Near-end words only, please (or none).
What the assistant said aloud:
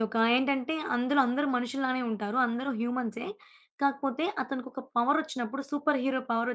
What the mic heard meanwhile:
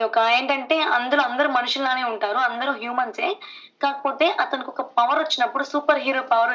none